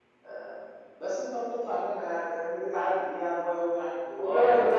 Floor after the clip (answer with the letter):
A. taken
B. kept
A